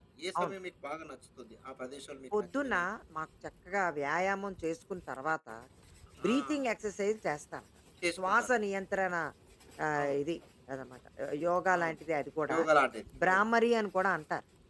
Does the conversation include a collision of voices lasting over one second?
No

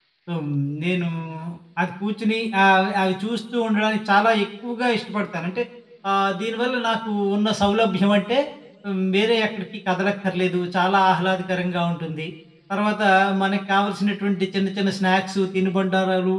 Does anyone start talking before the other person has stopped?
No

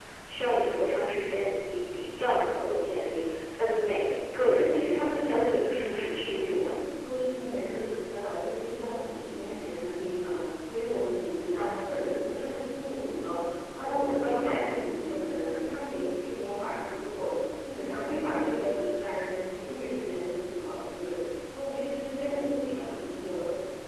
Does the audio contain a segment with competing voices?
Yes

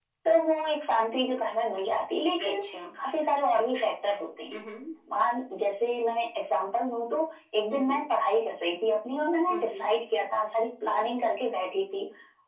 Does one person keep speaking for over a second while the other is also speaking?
No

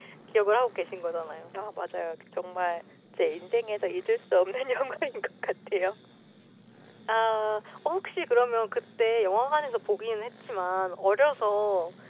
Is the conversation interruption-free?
Yes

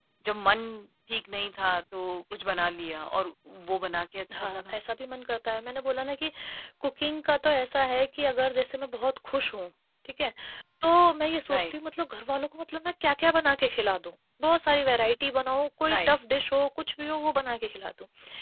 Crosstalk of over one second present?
No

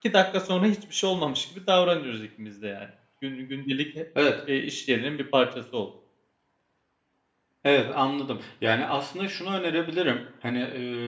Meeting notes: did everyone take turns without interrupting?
Yes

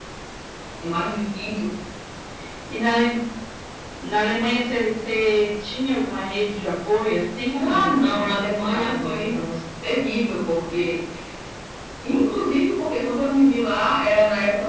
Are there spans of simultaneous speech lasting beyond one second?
Yes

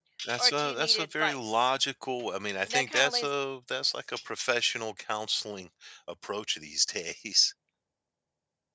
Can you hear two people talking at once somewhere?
Yes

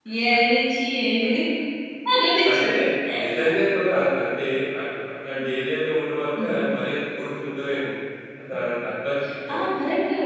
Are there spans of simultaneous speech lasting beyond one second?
No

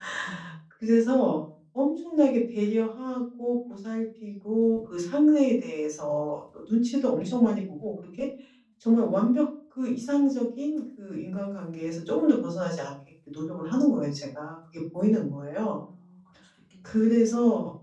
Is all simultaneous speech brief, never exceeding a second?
Yes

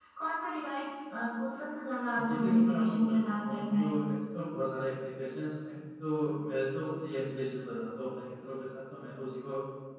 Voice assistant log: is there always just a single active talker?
No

